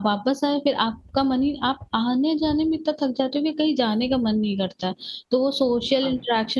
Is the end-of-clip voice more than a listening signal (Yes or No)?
No